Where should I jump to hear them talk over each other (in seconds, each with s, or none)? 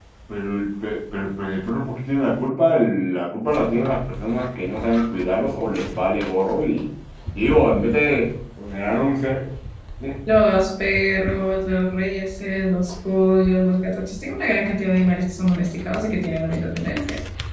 none